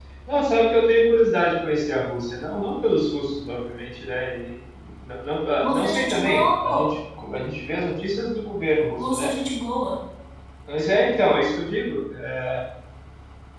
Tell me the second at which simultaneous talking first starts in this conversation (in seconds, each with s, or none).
5.6 s